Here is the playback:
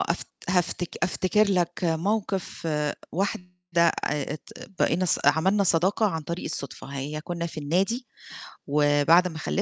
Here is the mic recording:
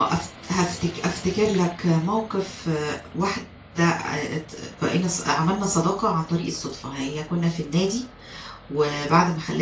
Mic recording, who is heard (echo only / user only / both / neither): echo only